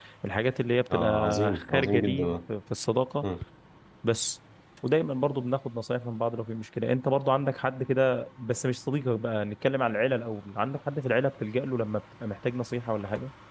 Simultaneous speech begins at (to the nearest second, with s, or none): 1 s